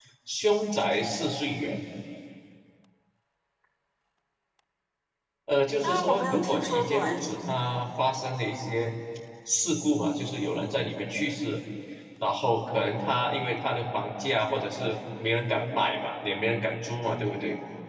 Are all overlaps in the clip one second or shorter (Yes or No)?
No